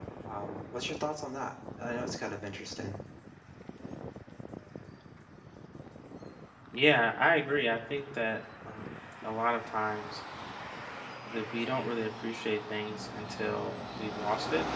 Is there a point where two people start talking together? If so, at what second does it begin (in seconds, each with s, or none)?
none